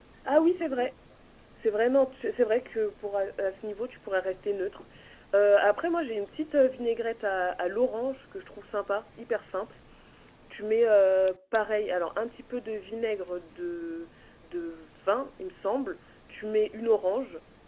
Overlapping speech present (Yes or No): No